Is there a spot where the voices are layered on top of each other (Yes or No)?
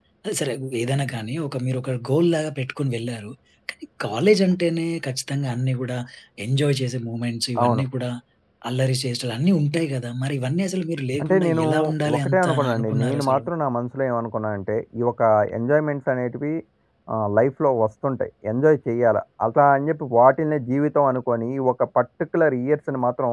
Yes